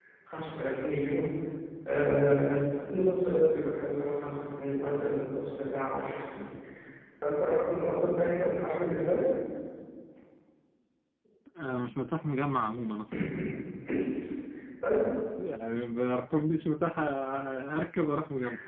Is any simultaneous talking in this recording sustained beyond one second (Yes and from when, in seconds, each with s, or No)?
No